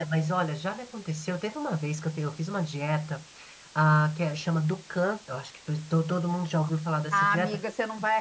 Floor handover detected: Yes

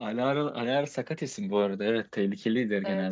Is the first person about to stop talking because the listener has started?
Yes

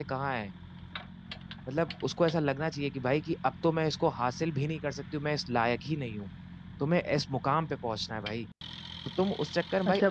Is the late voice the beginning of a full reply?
Yes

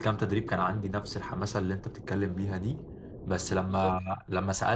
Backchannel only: Yes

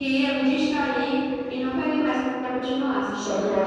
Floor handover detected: Yes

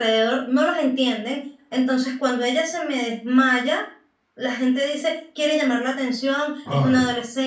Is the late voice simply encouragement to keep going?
Yes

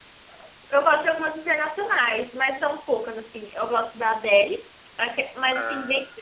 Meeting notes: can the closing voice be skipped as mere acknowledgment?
Yes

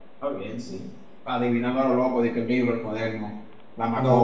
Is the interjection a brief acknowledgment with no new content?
No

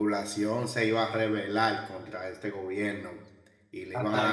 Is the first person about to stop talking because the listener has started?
No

